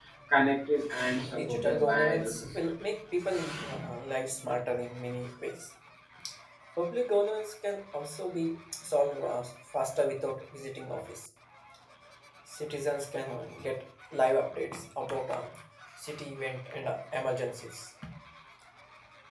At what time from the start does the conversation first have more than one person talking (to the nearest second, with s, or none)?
1 s